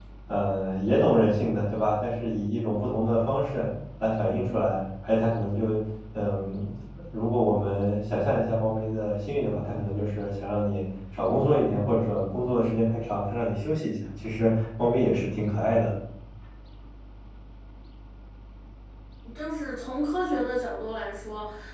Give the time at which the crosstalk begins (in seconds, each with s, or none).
none